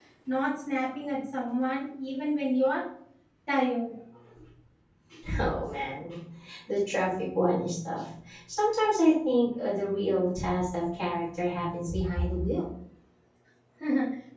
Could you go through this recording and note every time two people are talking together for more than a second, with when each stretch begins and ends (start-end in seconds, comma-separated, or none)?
none